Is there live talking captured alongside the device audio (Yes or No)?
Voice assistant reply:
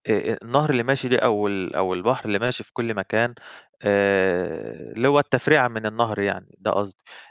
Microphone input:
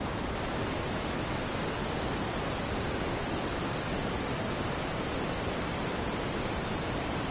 No